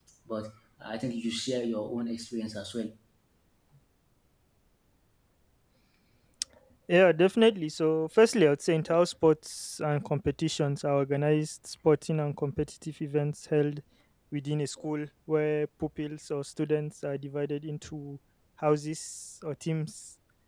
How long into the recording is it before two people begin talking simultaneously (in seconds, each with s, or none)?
none